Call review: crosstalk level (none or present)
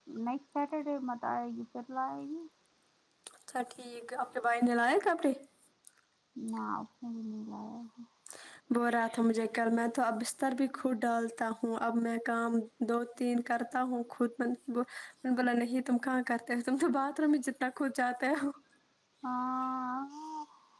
none